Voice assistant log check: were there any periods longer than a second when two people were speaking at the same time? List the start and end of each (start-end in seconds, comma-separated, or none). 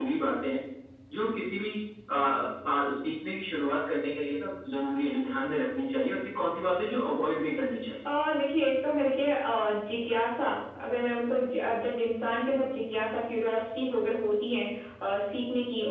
none